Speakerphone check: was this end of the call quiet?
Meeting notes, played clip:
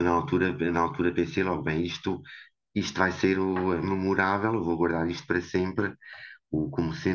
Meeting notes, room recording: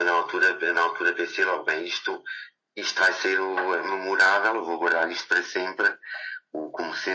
Yes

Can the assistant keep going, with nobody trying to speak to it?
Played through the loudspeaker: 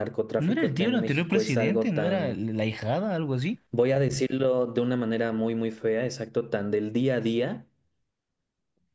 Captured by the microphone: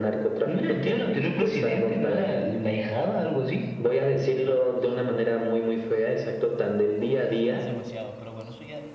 No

